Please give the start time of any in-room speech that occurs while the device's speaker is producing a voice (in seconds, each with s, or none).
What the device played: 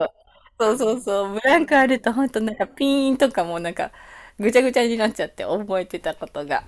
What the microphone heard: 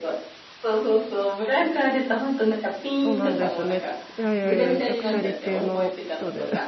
3.0 s